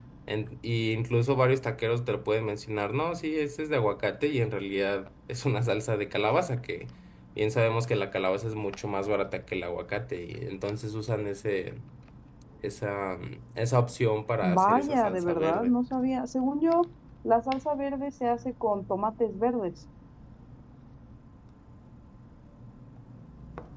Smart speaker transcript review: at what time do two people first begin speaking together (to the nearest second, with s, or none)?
14 s